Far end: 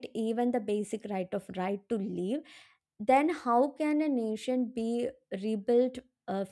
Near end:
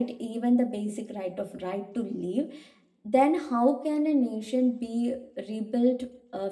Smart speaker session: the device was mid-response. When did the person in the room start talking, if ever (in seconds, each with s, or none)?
none